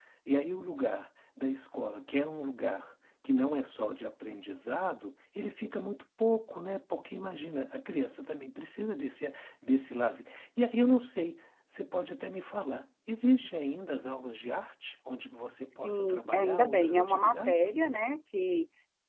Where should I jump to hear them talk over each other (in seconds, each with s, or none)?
15.8 s